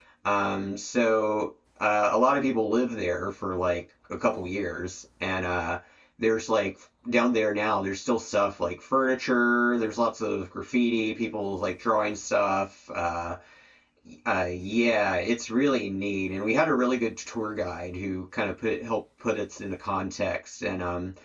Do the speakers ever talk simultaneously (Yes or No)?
No